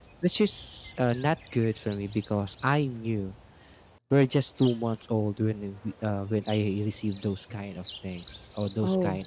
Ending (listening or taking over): listening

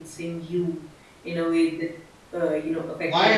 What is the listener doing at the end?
taking over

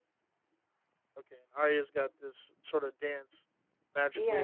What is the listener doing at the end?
taking over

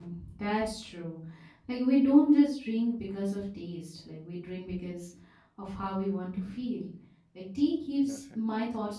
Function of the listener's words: listening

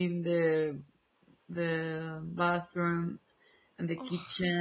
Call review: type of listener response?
listening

